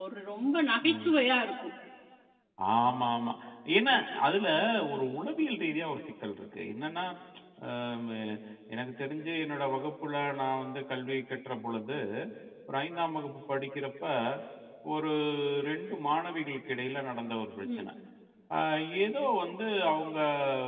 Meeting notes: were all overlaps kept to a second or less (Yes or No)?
Yes